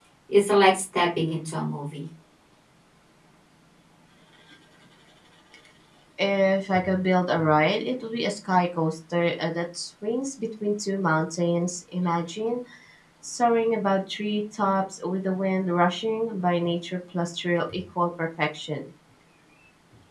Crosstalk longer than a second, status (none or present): none